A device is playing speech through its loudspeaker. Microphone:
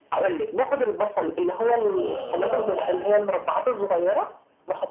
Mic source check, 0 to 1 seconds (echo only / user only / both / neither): echo only